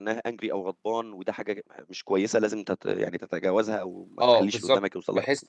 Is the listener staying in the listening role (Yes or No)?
No